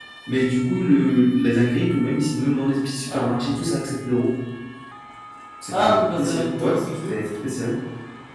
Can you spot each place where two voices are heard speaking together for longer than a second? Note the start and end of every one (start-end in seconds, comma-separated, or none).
5.7-7.2